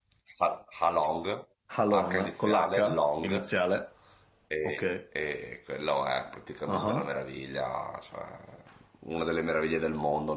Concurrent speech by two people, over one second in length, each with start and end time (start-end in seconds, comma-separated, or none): 1.9-3.5